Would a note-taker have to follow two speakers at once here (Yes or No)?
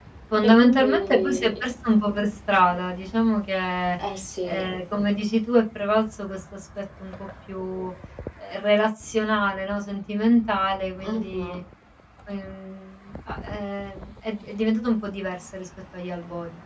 Yes